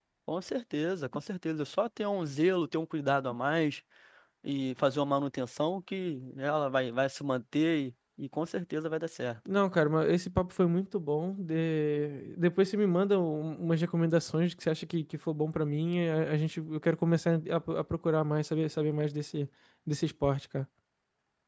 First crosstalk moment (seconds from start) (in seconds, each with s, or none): none